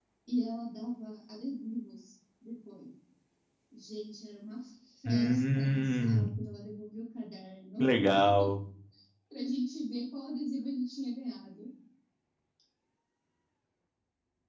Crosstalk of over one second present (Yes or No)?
Yes